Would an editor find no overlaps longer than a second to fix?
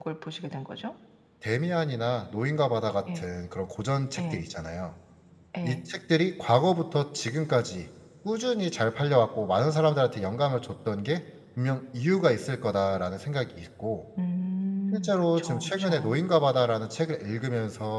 No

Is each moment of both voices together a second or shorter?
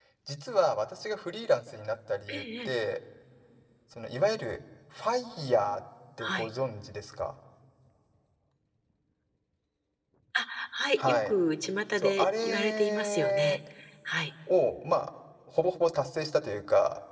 No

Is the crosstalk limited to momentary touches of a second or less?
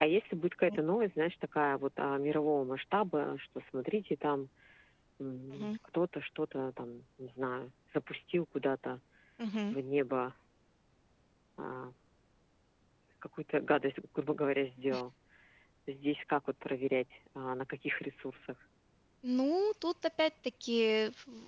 Yes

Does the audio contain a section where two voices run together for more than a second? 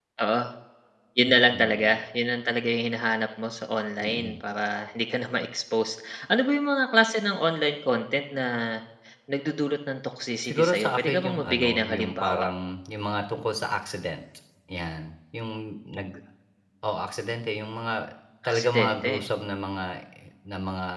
Yes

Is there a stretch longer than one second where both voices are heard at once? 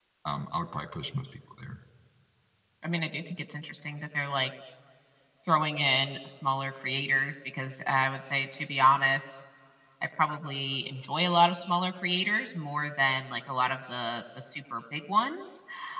No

